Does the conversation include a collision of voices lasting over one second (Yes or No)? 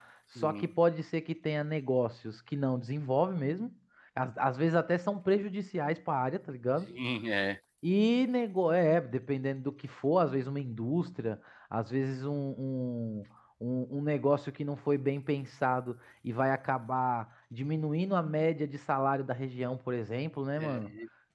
No